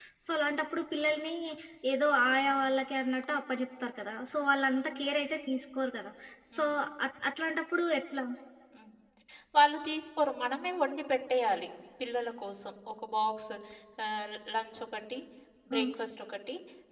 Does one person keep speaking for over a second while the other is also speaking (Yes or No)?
No